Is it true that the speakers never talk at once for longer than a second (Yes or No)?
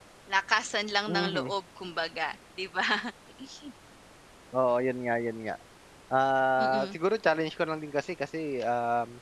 Yes